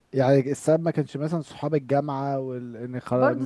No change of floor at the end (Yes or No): No